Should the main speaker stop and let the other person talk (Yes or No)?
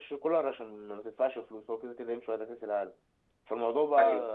No